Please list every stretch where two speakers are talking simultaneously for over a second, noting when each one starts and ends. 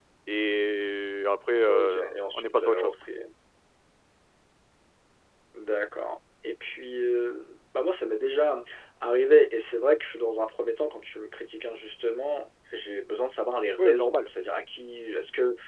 1.7-2.9

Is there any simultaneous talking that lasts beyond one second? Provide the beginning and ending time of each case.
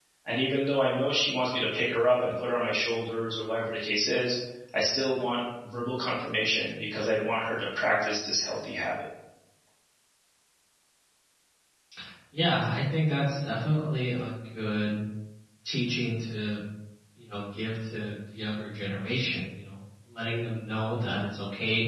none

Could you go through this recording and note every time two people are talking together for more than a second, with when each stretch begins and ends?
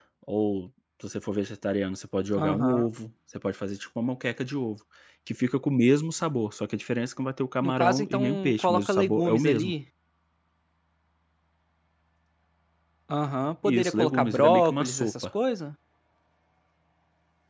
7.6-9.7, 13.7-15.2

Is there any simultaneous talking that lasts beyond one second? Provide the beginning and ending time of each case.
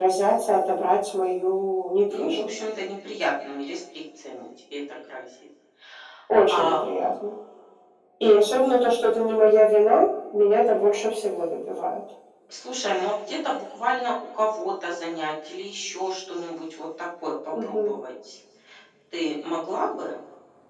none

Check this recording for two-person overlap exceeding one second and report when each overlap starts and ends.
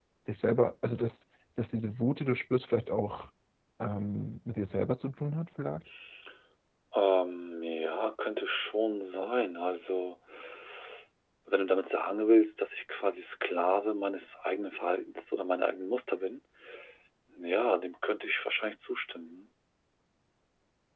none

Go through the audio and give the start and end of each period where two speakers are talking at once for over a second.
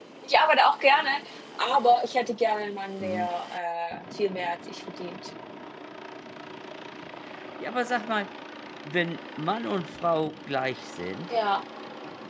none

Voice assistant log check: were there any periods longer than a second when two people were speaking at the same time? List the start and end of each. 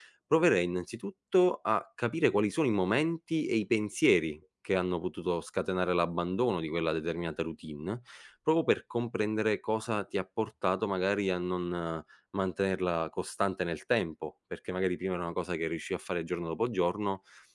none

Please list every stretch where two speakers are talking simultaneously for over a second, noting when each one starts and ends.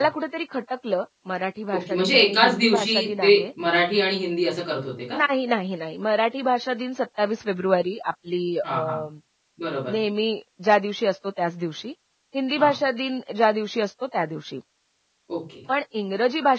1.7-3.4

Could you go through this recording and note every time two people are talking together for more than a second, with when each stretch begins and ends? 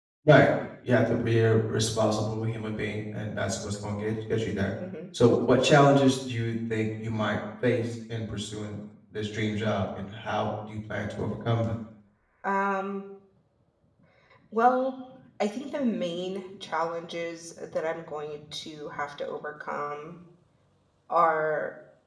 none

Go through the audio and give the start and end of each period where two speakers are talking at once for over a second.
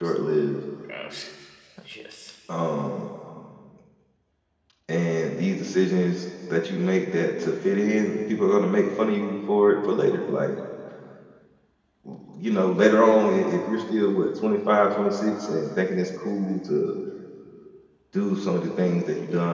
none

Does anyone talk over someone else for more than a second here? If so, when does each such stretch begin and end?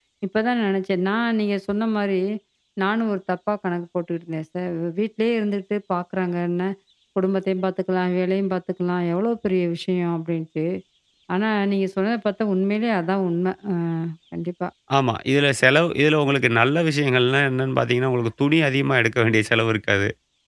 none

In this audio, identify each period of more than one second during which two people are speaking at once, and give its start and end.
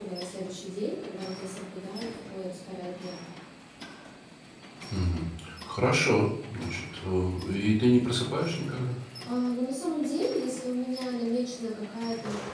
none

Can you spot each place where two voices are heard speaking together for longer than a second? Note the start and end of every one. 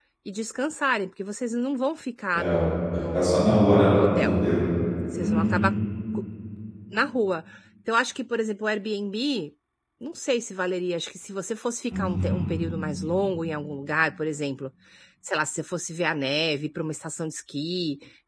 2.9-4.3

